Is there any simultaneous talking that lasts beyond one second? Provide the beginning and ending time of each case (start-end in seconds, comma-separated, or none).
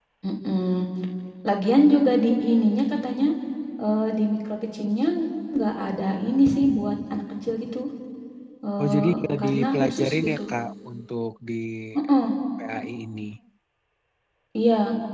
8.8-10.4